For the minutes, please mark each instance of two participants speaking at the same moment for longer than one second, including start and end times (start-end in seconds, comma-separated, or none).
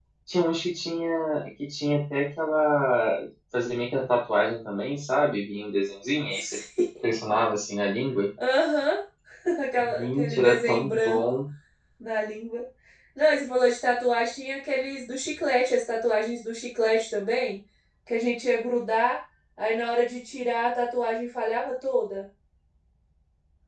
9.8-11.2